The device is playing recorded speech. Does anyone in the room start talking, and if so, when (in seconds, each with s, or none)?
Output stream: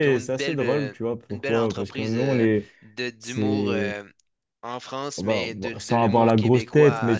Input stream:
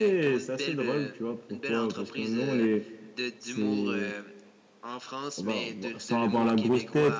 none